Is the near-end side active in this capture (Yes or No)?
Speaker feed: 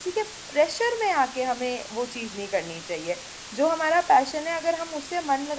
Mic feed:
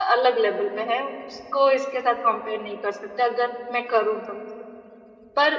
Yes